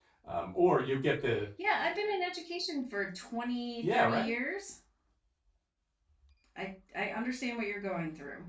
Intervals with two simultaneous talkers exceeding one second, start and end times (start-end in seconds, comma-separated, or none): none